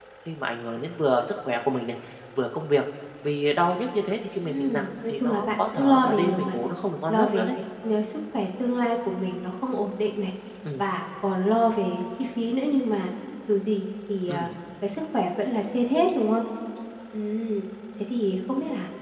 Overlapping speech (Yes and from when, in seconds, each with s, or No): Yes, from 4.4 s